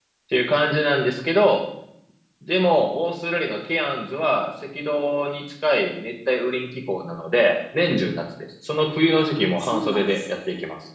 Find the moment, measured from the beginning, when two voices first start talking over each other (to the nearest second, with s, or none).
9 s